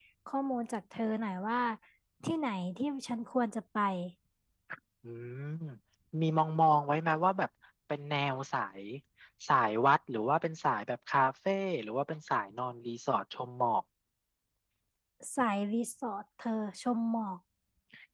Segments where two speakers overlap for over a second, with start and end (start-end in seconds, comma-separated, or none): none